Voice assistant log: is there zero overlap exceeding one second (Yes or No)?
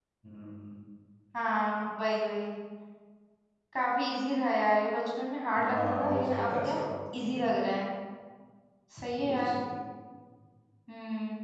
No